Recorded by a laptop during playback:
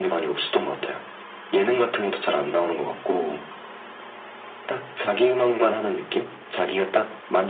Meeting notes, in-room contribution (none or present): none